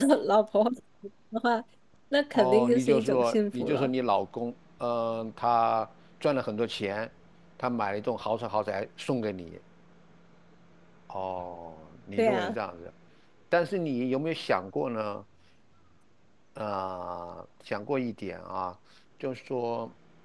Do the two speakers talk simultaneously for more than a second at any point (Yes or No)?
Yes